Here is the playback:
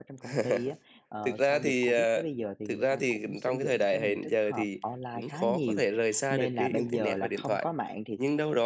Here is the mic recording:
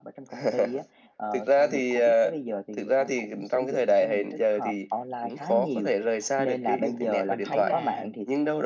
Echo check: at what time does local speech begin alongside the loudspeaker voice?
7.3 s

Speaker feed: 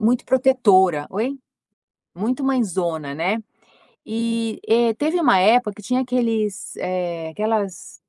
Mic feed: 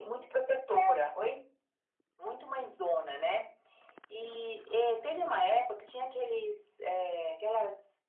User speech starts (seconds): none

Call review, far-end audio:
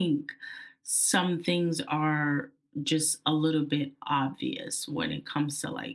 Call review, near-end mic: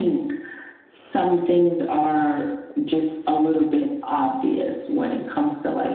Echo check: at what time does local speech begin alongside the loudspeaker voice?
none

